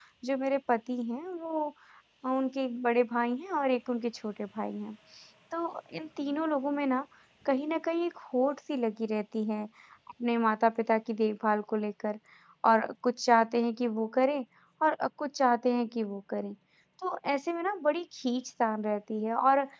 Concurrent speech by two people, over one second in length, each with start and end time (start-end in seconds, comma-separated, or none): none